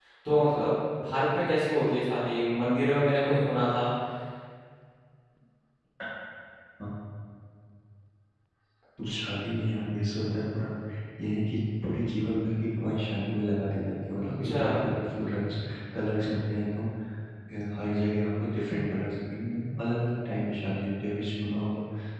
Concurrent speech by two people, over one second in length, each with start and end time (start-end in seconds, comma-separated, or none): none